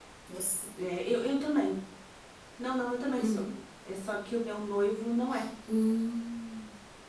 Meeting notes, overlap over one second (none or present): none